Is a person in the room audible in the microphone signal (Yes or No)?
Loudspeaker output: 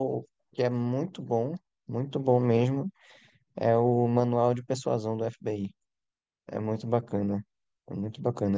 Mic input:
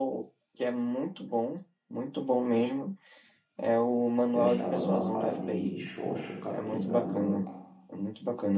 Yes